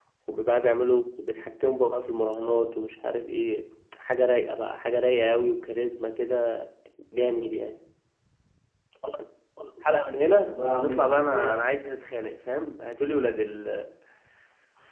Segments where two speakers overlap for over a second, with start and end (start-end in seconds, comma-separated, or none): 10.2-11.5